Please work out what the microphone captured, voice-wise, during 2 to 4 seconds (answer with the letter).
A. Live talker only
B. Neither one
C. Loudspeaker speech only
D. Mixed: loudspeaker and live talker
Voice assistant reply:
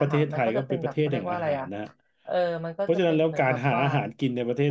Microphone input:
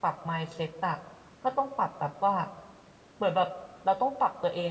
A